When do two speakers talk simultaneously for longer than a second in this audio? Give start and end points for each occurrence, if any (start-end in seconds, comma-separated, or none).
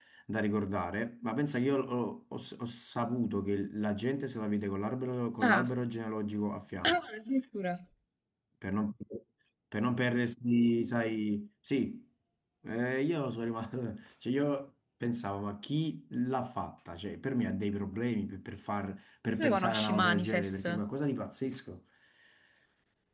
19.3-20.6